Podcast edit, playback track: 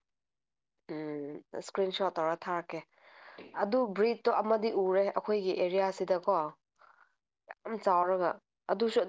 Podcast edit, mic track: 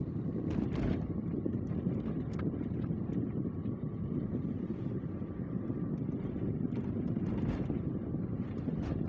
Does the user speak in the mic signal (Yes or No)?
No